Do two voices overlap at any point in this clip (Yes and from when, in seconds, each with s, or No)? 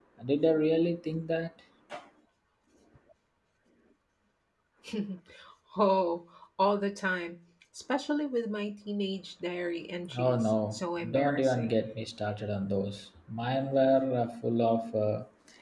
Yes, from 10.1 s